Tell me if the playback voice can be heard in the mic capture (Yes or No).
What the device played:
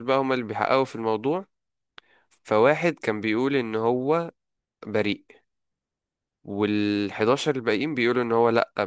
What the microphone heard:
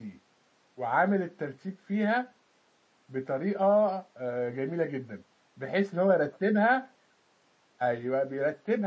No